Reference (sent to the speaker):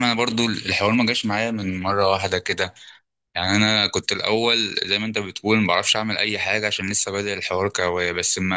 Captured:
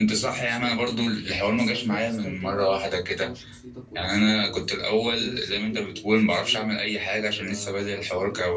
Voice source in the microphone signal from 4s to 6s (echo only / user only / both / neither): both